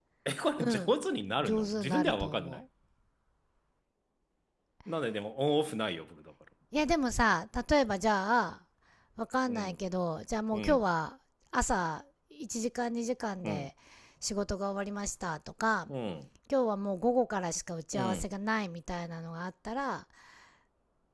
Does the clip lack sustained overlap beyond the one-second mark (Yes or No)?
No